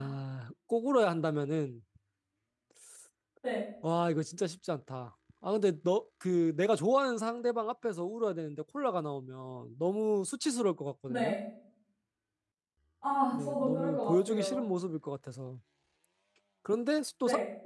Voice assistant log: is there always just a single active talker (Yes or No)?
No